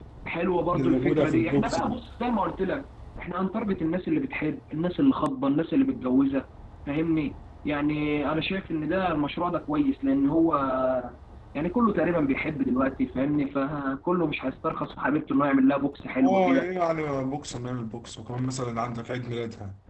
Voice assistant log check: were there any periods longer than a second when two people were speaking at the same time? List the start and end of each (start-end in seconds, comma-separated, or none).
0.7-2.0